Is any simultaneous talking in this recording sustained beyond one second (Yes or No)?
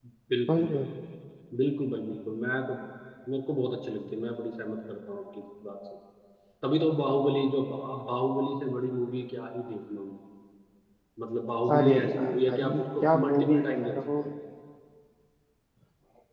Yes